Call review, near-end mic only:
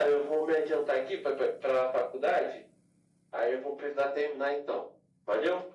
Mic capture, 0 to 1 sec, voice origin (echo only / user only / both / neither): echo only